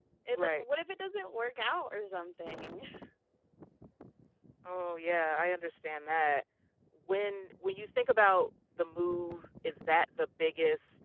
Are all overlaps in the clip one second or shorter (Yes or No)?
Yes